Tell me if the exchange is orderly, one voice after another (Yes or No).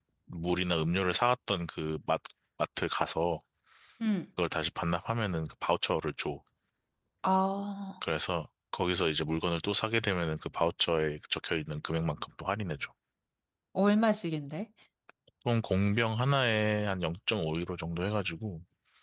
Yes